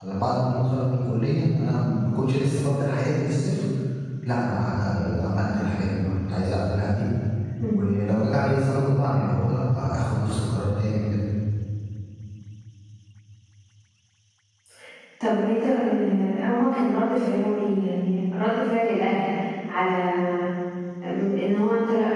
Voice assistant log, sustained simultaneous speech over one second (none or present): none